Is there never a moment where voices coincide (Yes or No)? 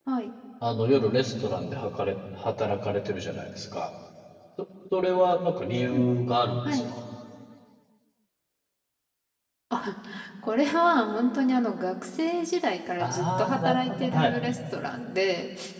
No